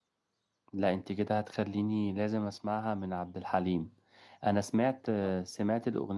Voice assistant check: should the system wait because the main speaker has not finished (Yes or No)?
Yes